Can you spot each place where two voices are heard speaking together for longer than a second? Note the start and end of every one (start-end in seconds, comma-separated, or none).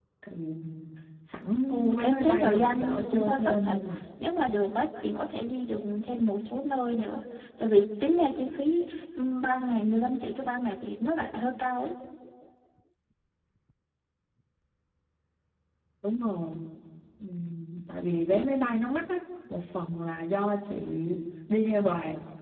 2.0-3.8